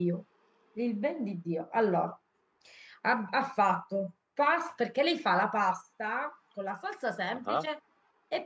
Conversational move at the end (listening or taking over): listening